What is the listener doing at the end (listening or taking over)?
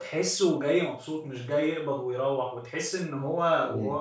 listening